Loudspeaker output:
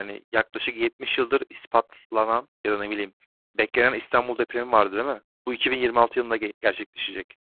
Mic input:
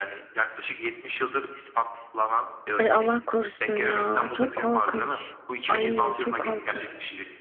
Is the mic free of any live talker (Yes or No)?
No